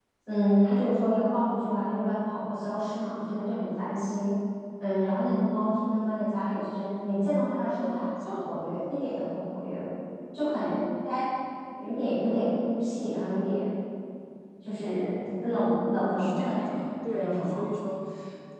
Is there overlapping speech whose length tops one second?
Yes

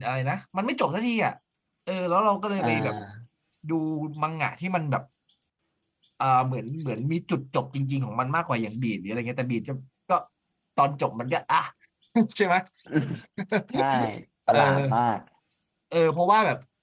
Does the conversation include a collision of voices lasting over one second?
No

